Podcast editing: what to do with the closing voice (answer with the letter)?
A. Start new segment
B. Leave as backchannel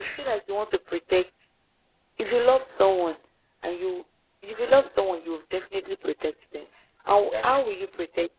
B